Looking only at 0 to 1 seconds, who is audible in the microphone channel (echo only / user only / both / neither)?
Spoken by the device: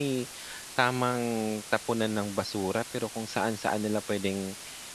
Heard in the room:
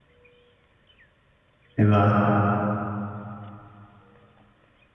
neither